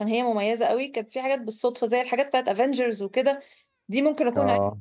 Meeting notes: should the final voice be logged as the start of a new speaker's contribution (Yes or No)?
No